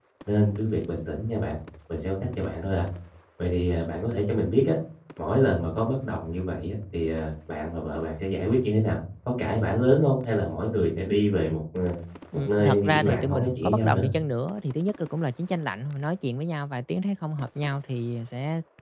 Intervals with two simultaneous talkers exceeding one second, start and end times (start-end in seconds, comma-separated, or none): 12.5-14.1